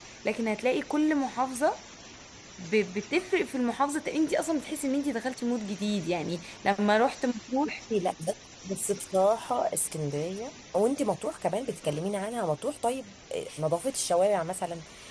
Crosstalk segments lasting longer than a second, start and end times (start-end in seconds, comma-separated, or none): none